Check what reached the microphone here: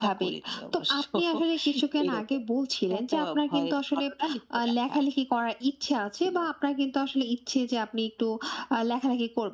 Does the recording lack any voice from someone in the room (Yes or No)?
Yes